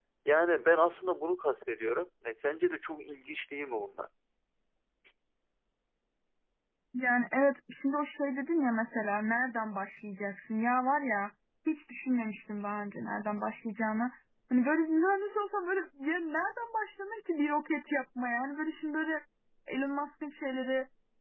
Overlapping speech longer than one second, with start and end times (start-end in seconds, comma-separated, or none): none